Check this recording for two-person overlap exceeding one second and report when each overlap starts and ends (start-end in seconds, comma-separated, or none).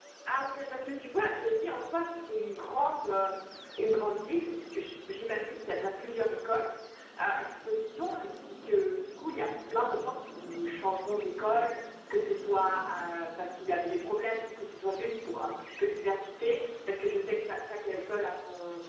none